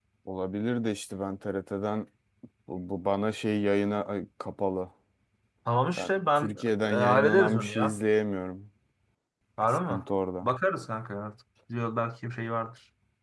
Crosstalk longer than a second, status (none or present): present